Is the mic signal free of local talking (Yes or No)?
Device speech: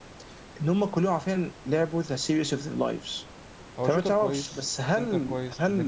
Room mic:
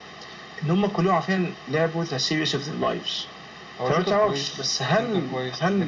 Yes